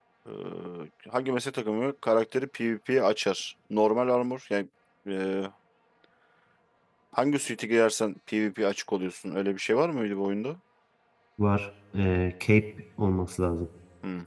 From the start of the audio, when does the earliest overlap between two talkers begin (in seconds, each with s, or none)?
none